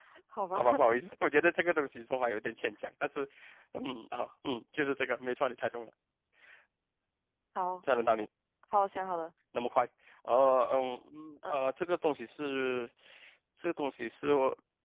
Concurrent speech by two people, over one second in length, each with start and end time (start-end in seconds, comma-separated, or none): none